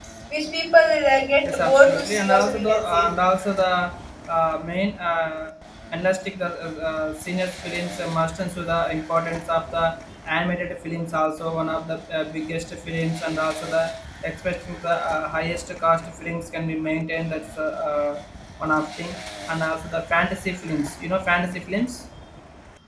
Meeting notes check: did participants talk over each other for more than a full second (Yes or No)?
Yes